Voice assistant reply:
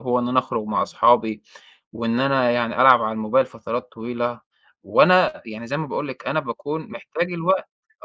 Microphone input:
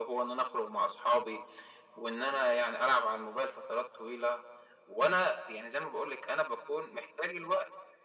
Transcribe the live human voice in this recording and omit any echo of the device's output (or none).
none